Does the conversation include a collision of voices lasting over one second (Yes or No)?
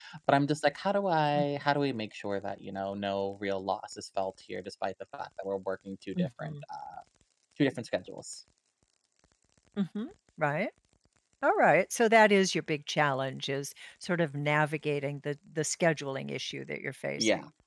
No